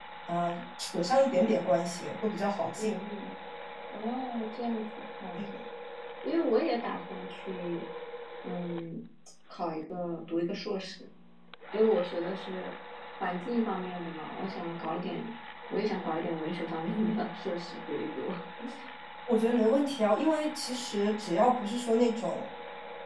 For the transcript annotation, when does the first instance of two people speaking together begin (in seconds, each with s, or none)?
none